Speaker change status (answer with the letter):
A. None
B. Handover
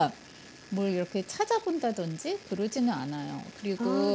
A